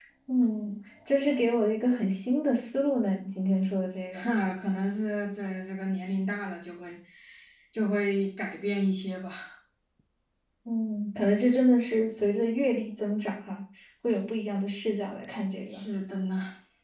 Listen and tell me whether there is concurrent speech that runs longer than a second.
No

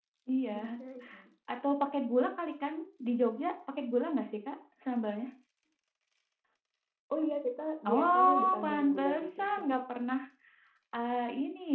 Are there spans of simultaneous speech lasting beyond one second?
Yes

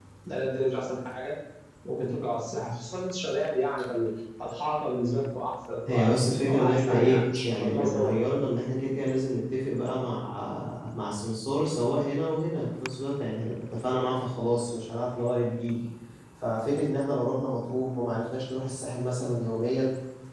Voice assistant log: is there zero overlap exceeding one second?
No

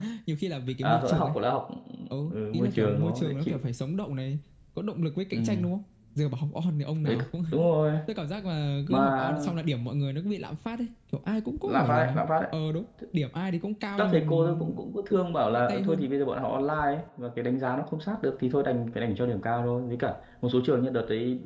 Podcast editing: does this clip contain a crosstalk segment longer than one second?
Yes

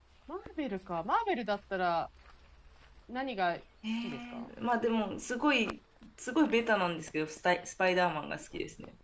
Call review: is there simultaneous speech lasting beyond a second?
No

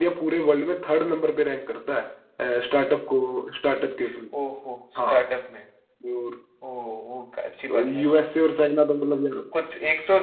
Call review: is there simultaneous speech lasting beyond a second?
No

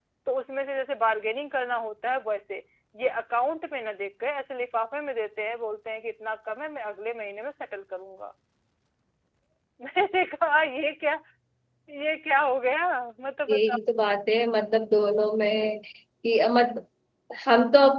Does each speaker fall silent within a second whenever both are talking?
Yes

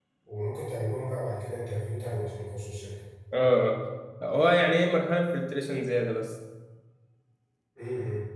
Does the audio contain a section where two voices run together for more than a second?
No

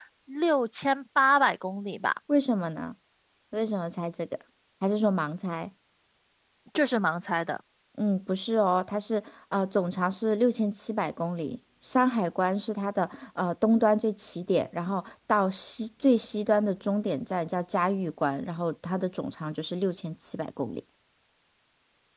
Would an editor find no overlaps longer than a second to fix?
Yes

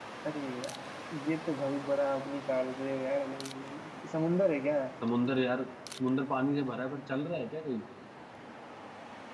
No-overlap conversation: Yes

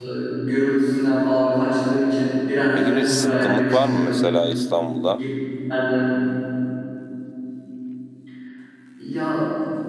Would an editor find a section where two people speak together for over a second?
Yes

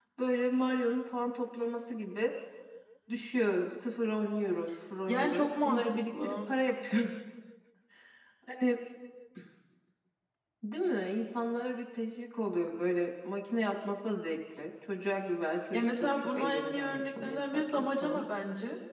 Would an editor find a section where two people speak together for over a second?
Yes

